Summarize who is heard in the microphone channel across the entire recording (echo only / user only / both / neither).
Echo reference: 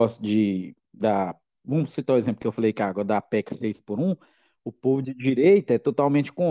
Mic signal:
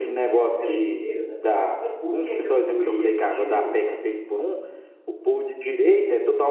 both